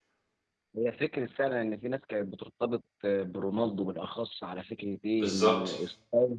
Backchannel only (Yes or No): Yes